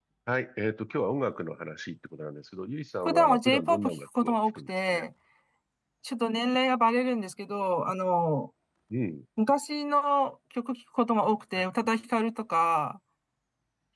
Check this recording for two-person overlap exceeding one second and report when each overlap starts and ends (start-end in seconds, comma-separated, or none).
3.0-5.0